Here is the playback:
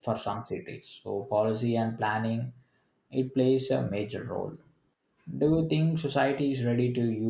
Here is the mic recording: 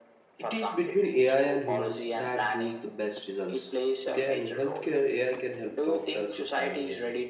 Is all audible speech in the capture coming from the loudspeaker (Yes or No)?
No